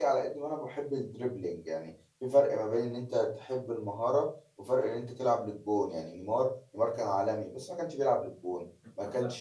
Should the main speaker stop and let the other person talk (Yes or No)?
No